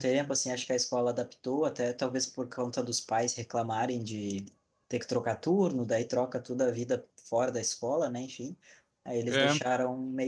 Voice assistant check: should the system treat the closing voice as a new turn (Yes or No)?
No